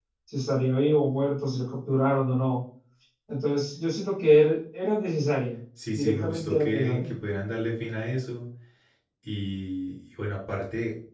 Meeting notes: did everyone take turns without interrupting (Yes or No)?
No